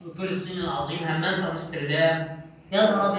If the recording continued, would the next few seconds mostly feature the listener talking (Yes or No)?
Yes